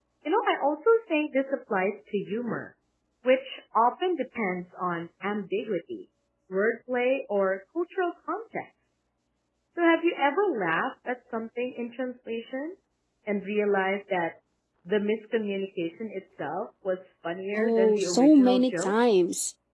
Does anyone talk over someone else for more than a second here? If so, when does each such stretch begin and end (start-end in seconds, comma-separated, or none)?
17.6-18.9